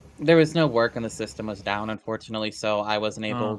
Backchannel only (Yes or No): Yes